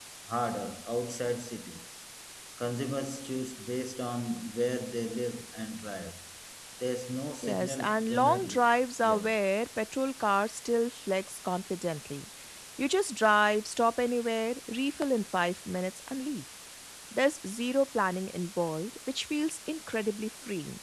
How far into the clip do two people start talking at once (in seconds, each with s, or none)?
7.4 s